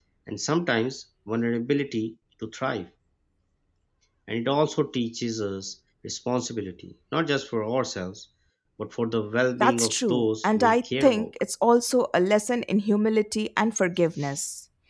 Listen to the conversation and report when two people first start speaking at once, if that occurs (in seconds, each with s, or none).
9.6 s